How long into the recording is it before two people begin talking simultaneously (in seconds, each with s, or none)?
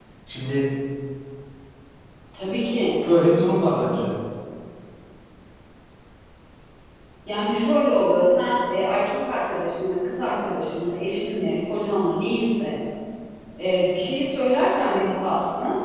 none